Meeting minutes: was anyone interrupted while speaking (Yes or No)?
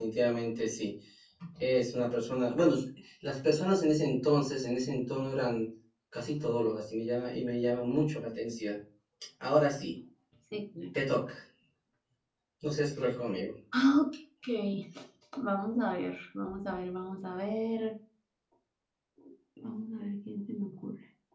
No